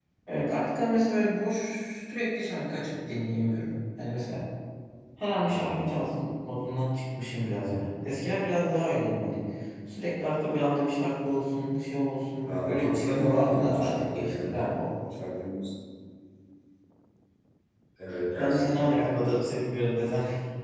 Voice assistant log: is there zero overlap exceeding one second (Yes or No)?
No